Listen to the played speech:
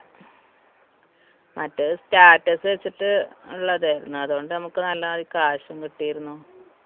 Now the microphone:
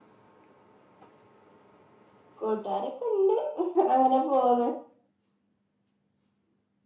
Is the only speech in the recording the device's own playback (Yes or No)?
No